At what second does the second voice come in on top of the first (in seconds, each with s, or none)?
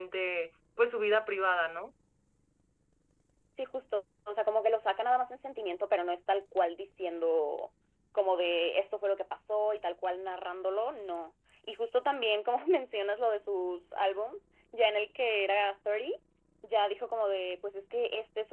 none